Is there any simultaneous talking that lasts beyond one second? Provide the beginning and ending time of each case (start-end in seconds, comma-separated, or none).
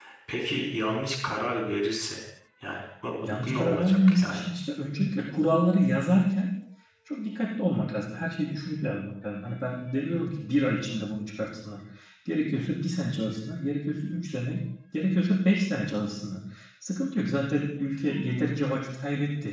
3.2-4.5